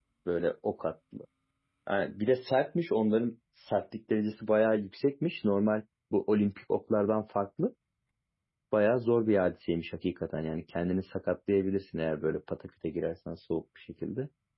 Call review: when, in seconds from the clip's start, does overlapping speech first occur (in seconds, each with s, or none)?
none